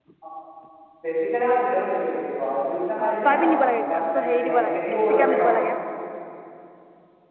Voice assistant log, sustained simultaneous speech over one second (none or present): present